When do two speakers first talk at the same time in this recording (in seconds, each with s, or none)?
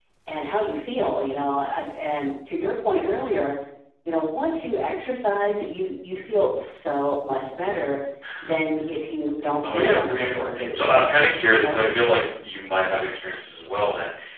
9.6 s